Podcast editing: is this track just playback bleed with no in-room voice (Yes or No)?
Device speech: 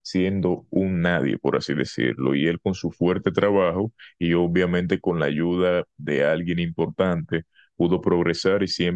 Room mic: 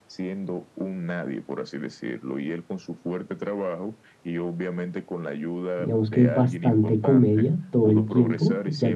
No